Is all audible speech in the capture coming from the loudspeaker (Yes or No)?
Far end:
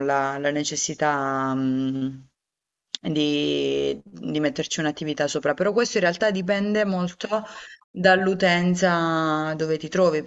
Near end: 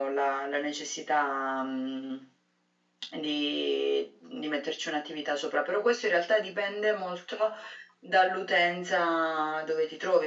Yes